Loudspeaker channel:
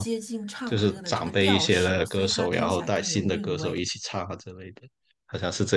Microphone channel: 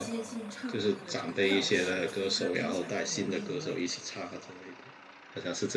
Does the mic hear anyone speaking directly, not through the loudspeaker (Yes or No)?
No